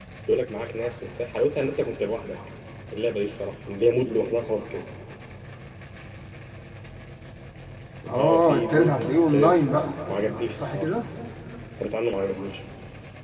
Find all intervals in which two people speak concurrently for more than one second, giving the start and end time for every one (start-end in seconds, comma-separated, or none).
8.2-9.6